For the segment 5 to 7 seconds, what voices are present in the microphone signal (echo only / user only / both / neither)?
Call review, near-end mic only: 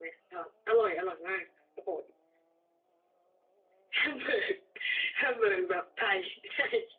echo only